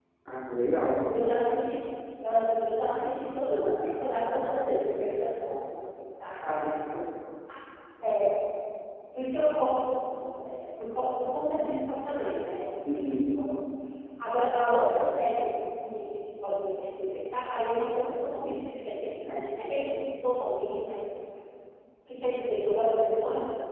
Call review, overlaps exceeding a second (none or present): none